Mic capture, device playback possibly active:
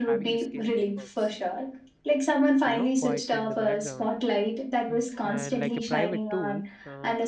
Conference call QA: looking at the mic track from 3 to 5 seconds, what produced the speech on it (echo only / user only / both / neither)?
both